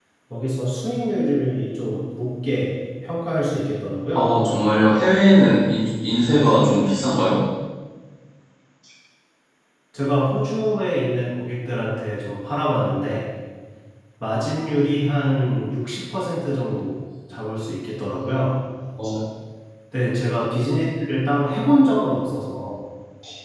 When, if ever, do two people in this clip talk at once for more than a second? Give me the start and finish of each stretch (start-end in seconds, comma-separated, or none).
none